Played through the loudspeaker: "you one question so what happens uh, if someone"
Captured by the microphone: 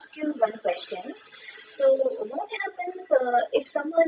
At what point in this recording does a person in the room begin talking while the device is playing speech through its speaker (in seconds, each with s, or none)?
none